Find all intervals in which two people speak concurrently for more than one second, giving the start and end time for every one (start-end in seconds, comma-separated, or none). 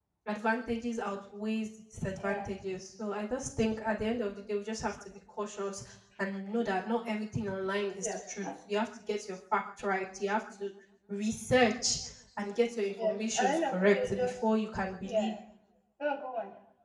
13.0-14.3